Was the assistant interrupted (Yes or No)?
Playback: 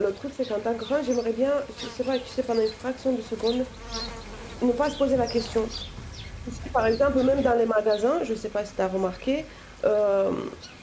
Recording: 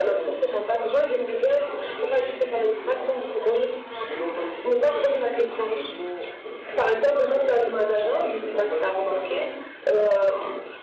Yes